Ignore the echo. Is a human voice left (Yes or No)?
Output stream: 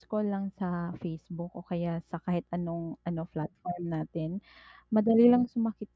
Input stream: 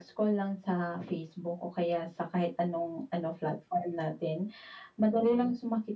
No